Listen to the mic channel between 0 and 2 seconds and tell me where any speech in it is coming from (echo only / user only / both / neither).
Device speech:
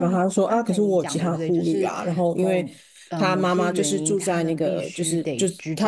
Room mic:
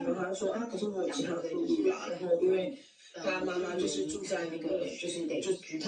echo only